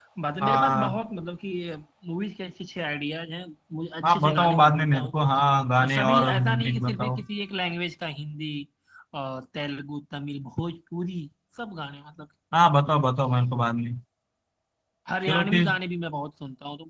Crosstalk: present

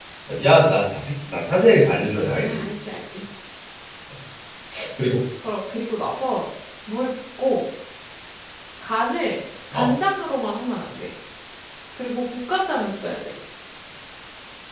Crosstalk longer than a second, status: none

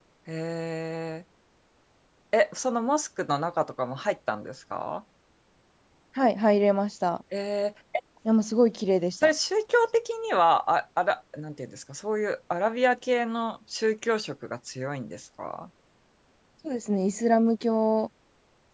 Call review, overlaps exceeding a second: none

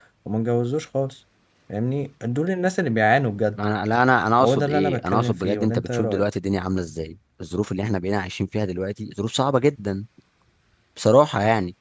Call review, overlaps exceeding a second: present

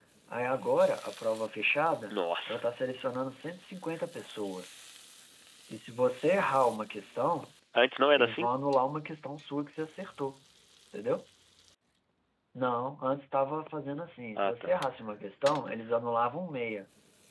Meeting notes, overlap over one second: none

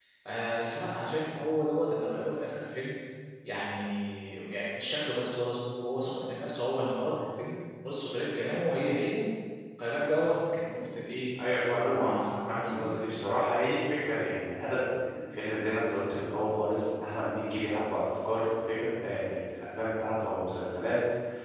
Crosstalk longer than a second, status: present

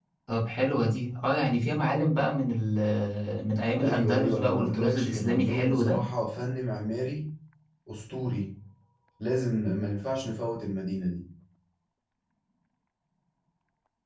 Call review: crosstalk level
present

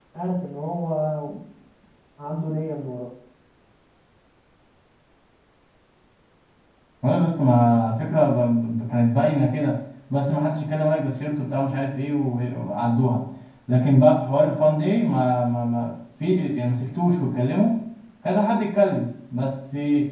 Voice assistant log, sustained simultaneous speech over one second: none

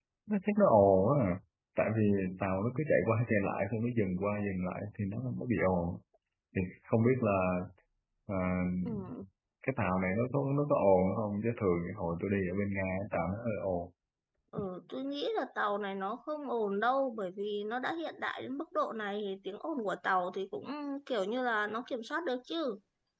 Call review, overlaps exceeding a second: none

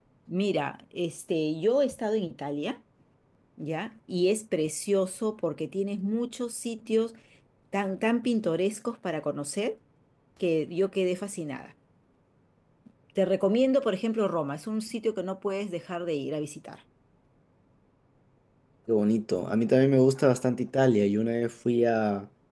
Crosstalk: none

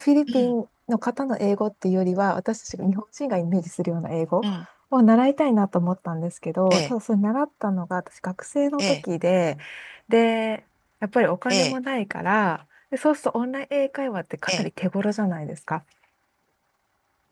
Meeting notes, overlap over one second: none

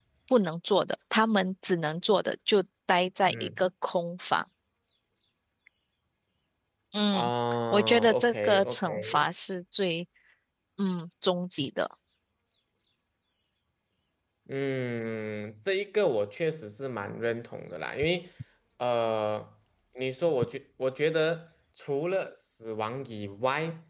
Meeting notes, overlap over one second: present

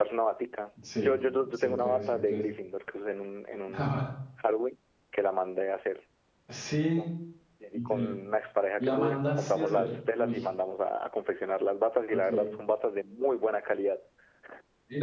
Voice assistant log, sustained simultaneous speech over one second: present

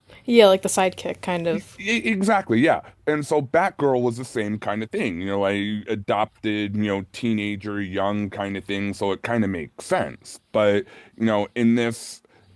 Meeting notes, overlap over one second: none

